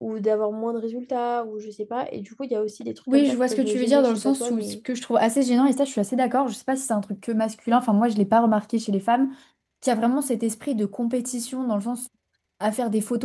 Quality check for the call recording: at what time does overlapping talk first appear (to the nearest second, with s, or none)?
3 s